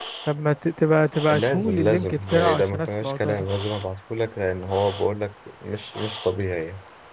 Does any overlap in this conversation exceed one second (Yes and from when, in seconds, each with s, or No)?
Yes, from 1.3 s